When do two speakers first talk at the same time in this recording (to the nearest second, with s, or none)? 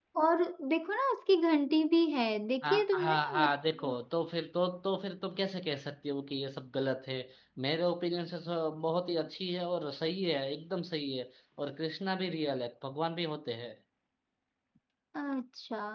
3 s